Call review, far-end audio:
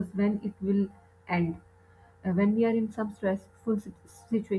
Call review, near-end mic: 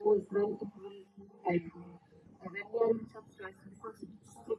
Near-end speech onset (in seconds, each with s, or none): none